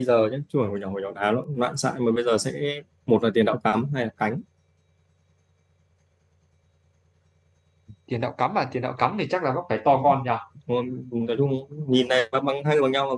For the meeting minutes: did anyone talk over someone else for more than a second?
No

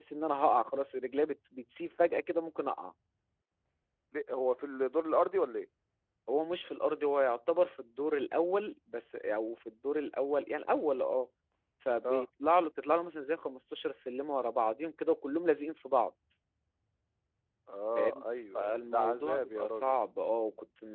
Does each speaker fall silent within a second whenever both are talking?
No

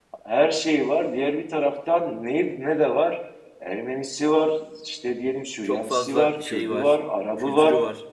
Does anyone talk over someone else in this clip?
Yes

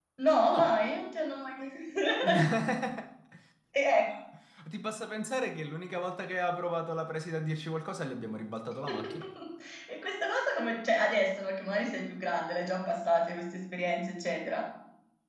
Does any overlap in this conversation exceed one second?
No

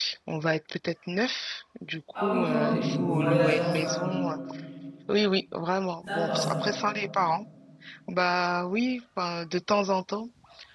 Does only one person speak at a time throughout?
No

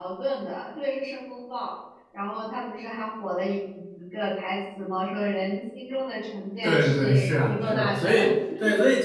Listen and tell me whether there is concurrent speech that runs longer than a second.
Yes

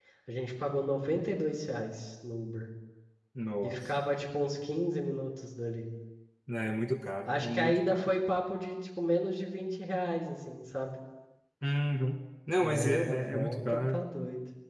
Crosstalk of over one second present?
Yes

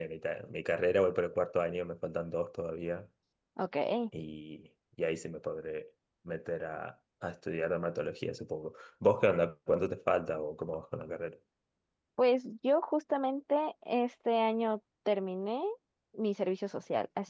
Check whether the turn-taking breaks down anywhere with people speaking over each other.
No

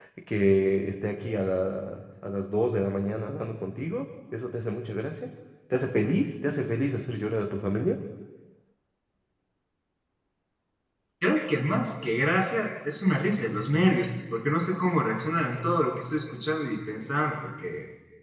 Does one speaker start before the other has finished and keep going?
No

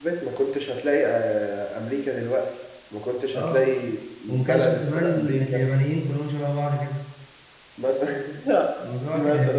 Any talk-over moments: Yes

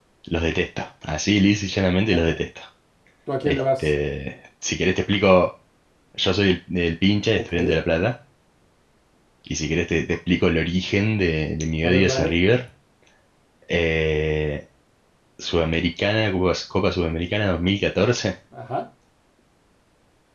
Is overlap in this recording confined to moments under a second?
Yes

